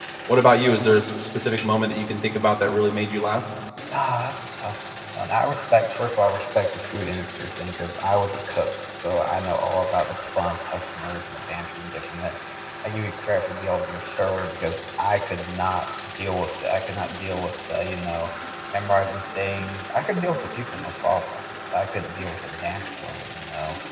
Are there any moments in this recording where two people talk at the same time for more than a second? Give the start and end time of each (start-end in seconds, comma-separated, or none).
none